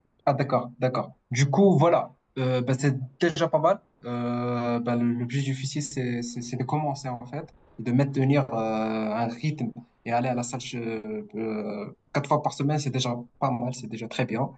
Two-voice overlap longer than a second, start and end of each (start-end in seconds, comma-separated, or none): none